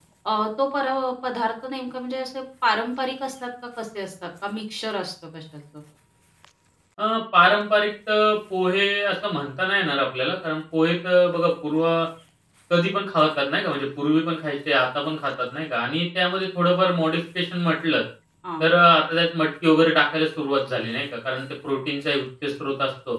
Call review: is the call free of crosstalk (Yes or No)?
Yes